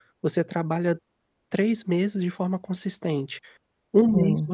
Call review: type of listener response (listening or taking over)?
listening